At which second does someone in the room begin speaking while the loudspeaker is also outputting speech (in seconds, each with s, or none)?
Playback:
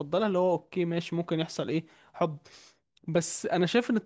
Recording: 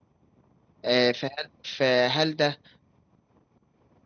0.8 s